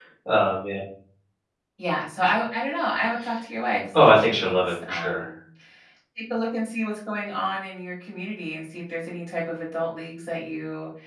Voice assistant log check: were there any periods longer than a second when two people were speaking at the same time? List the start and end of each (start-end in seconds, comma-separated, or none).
3.9-5.2